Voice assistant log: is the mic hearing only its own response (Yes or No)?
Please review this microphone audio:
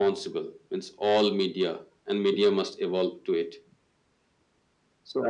Yes